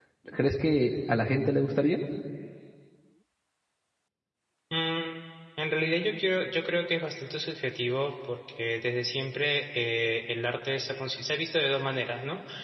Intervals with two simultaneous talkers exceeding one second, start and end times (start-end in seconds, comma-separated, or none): none